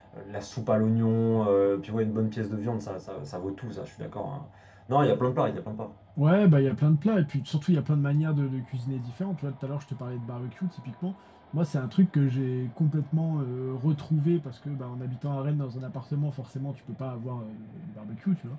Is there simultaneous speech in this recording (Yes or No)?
No